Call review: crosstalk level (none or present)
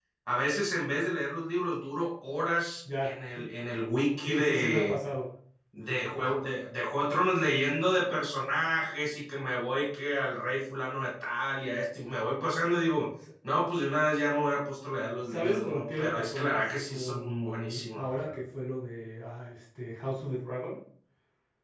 present